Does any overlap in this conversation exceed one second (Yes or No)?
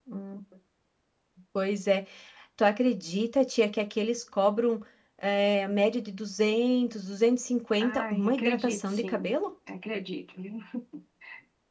Yes